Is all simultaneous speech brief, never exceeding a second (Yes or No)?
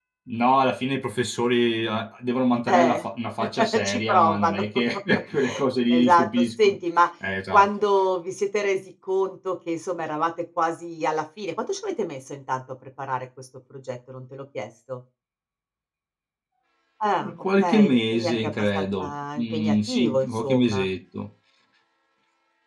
No